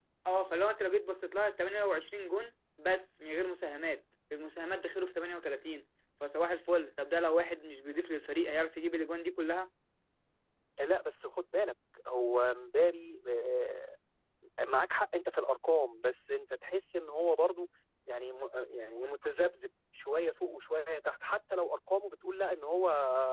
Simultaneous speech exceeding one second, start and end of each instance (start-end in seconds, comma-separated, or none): none